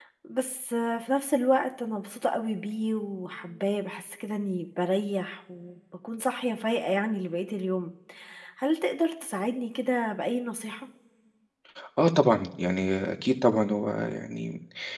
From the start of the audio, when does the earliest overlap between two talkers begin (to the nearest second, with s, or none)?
none